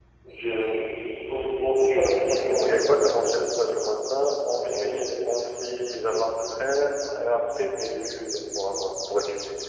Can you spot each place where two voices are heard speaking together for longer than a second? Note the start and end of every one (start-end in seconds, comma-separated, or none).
none